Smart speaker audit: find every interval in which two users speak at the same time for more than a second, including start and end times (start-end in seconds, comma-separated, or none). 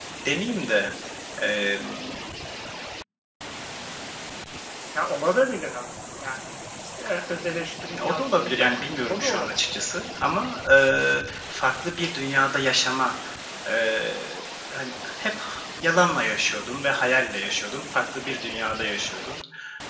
8.0-9.7